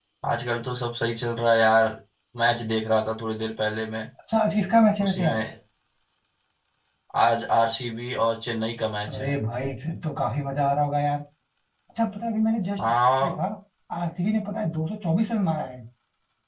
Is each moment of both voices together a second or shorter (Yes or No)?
Yes